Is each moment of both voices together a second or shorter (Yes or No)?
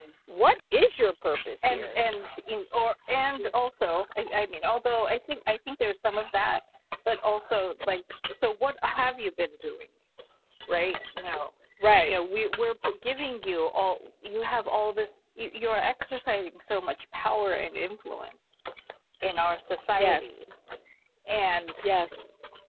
Yes